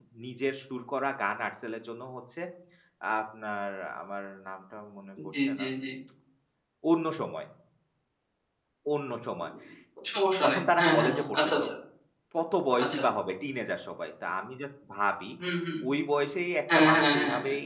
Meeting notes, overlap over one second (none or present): present